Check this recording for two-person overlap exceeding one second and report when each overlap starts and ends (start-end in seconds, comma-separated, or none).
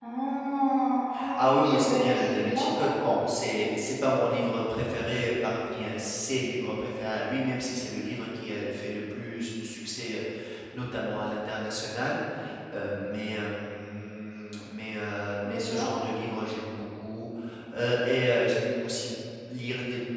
1.4-2.9